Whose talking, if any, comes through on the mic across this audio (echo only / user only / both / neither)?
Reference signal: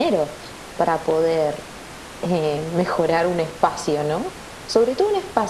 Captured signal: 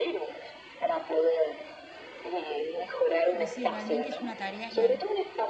both